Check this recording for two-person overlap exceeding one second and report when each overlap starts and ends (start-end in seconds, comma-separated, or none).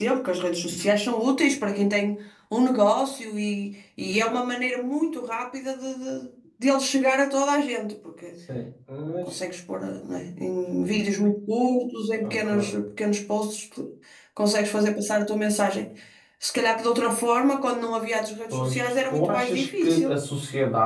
18.5-20.1